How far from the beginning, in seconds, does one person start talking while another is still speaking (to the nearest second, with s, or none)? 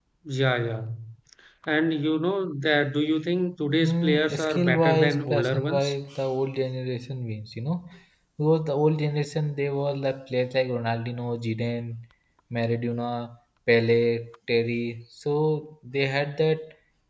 4 s